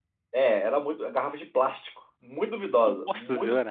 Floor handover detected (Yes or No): Yes